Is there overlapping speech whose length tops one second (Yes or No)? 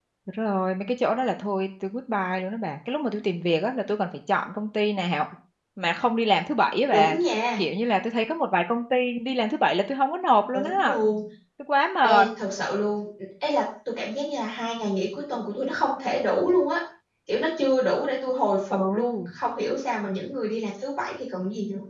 No